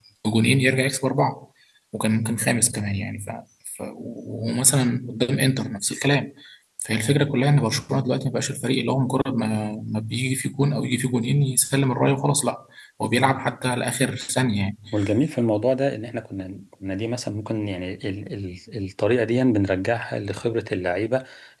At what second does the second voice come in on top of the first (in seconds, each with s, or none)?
none